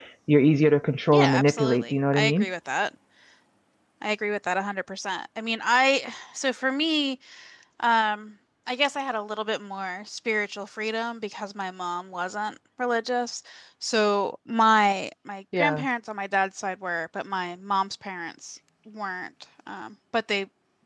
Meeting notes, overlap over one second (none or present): present